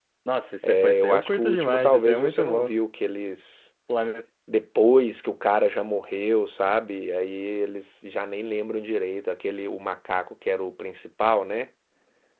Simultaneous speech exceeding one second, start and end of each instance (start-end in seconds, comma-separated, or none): 0.7-2.7